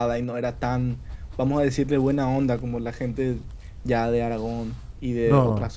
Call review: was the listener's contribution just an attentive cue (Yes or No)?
No